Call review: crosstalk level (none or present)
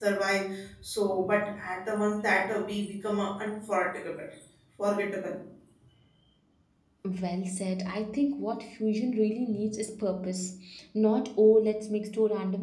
none